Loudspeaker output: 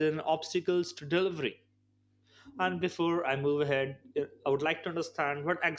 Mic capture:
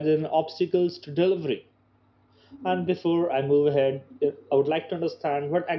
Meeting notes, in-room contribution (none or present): none